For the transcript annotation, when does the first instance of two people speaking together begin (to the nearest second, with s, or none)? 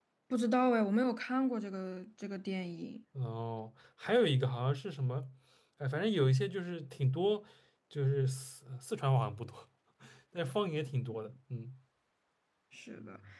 none